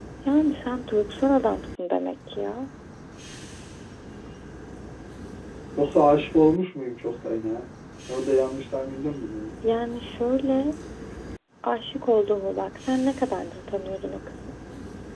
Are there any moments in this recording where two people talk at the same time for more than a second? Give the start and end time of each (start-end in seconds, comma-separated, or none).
none